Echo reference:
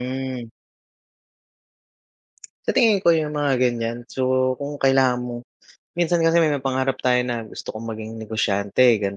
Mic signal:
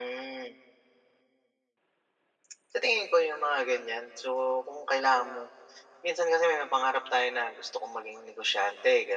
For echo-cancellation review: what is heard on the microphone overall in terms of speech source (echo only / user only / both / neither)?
echo only